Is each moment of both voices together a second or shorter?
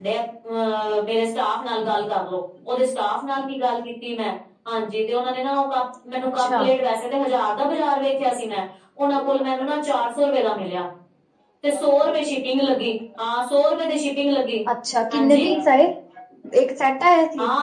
Yes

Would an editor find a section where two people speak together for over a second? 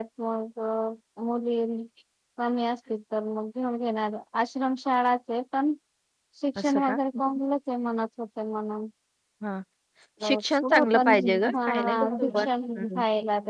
Yes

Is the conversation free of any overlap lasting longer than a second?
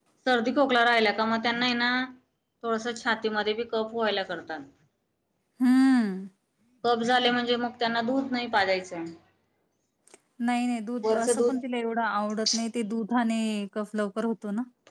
Yes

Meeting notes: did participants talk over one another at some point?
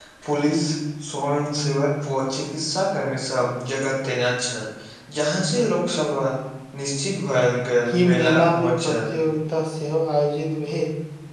Yes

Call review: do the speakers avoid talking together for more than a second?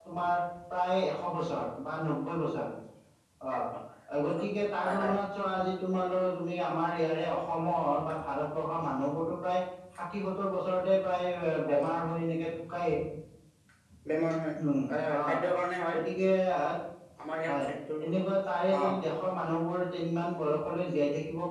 Yes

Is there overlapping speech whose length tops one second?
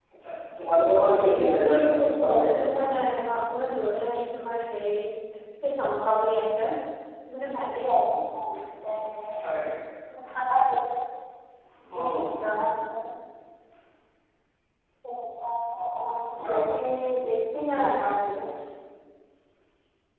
Yes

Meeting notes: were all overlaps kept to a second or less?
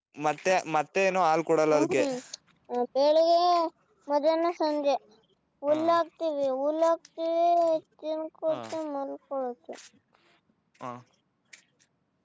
Yes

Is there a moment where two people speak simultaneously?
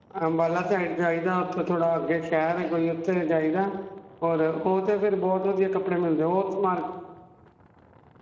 No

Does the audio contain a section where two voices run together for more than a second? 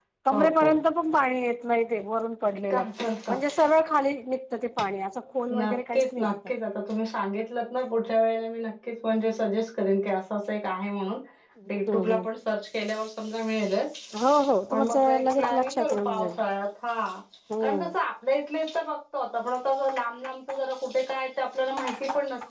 Yes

